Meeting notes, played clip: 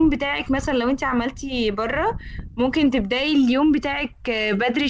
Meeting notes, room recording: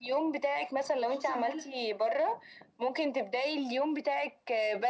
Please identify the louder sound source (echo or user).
echo